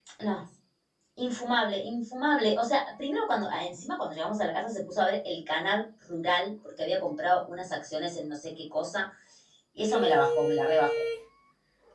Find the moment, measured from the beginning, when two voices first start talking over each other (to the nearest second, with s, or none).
10 s